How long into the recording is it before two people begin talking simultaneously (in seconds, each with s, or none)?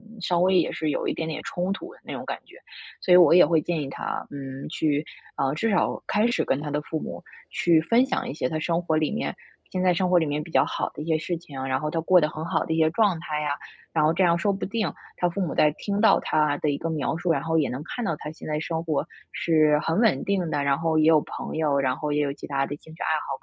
none